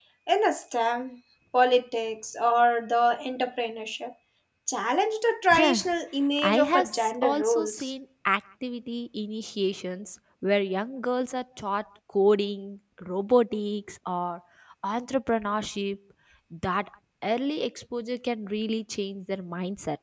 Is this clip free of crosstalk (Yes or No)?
No